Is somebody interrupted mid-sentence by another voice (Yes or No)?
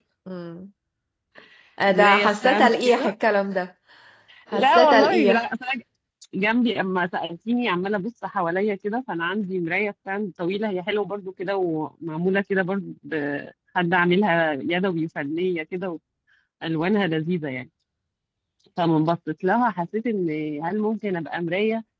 Yes